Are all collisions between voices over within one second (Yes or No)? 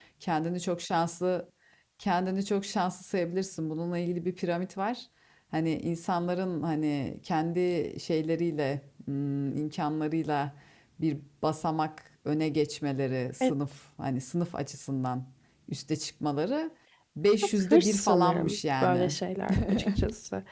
No